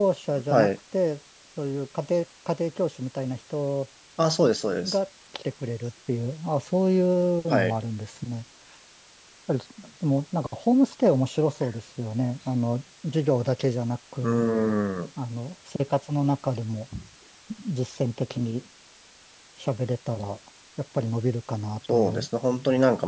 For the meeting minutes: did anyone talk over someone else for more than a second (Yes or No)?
No